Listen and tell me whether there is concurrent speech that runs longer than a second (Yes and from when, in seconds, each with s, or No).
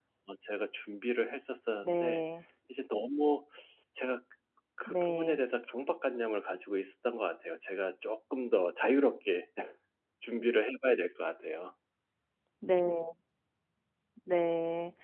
No